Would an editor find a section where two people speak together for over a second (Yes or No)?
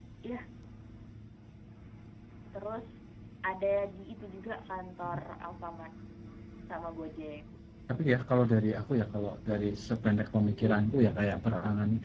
No